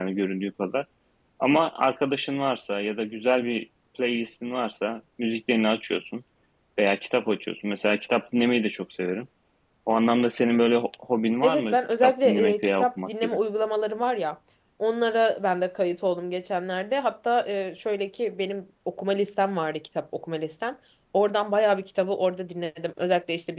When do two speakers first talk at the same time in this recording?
11.4 s

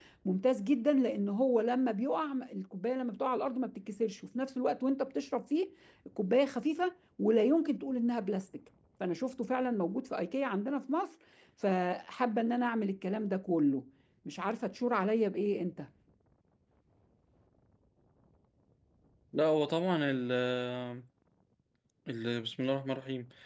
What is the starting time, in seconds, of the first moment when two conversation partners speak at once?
none

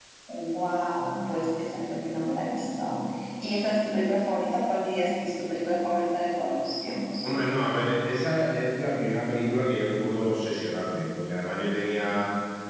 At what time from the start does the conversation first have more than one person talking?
none

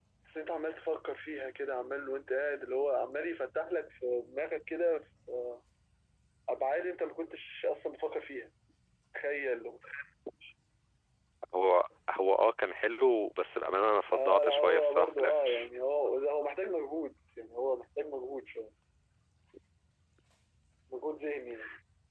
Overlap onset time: 14.1 s

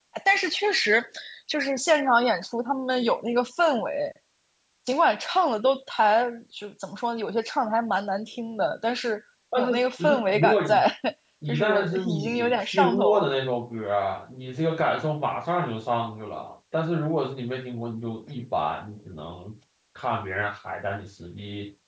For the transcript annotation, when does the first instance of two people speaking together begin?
9.6 s

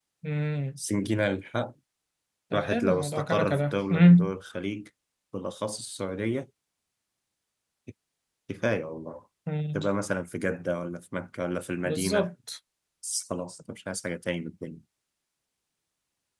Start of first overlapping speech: 2.5 s

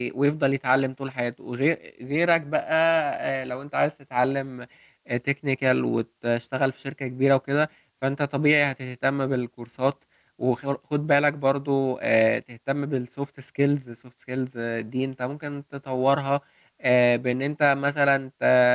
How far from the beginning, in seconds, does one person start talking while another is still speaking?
none

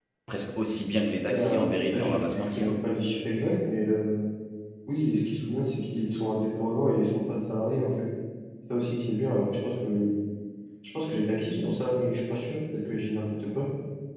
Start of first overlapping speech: 1.3 s

